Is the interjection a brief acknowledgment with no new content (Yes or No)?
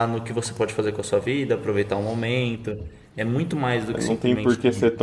No